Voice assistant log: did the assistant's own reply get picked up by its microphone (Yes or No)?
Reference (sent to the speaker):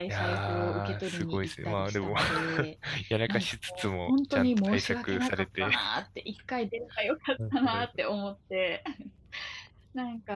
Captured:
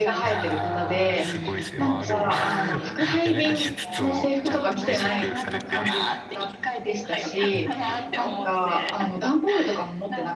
Yes